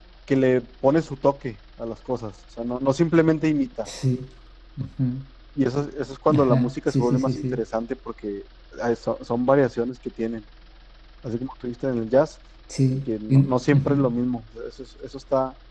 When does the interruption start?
6.3 s

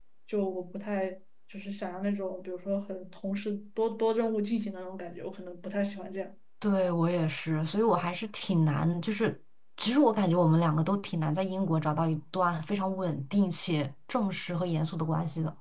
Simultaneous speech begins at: none

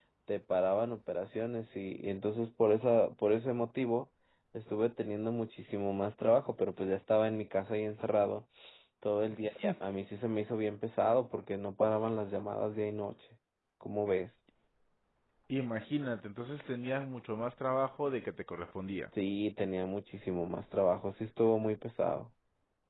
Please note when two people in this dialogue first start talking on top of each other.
none

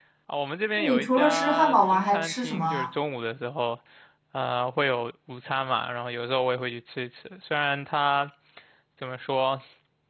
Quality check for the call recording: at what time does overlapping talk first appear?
0.8 s

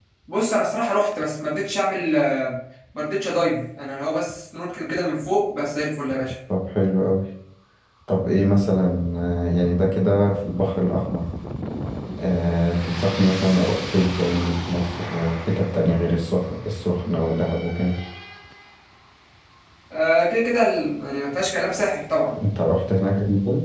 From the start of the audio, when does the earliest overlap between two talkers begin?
none

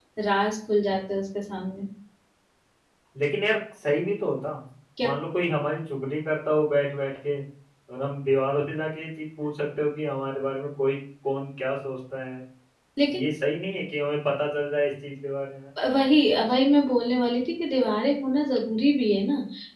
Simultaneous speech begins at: none

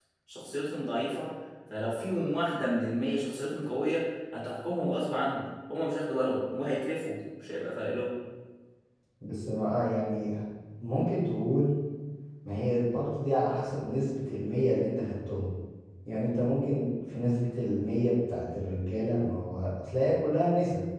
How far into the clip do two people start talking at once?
none

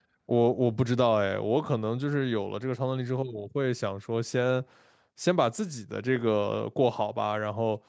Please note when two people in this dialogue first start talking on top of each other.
none

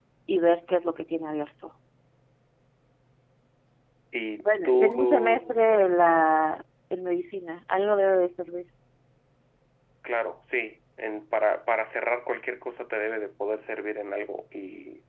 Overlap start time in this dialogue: 4.4 s

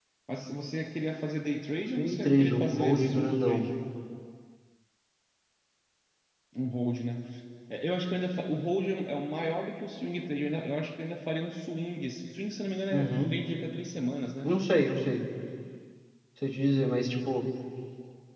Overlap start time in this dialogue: 1.9 s

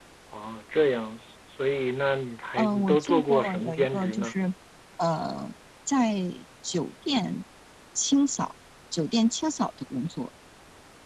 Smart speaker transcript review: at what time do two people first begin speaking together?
2.6 s

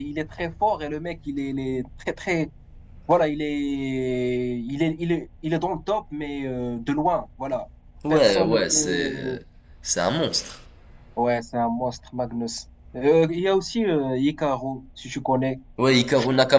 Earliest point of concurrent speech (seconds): 8.1 s

